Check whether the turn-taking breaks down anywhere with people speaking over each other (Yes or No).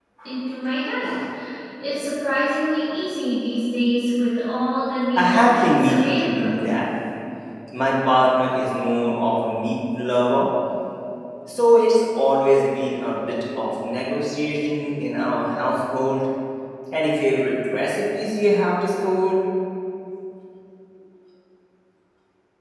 Yes